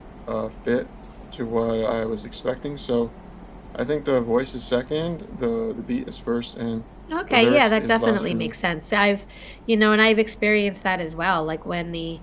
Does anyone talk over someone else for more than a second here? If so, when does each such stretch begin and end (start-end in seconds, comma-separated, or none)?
7.3-8.5